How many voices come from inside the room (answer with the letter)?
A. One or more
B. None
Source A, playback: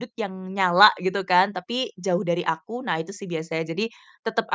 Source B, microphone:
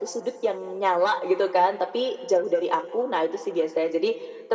B